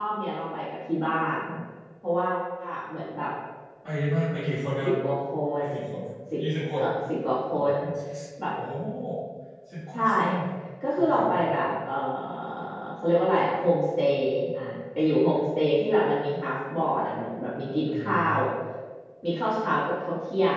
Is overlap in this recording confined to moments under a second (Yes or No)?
Yes